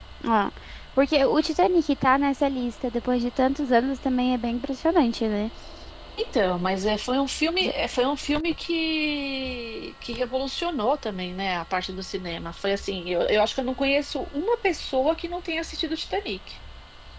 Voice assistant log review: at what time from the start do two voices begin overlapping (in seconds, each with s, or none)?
none